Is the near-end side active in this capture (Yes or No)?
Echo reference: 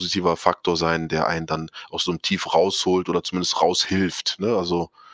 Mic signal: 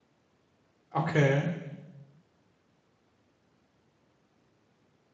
Yes